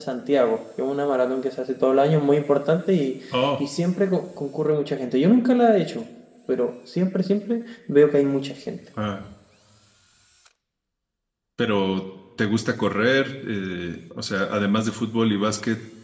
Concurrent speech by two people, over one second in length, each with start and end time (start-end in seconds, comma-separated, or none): none